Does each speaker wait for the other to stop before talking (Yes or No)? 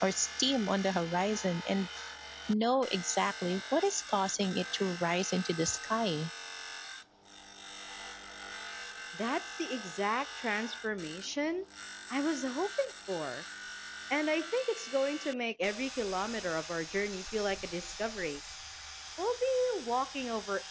Yes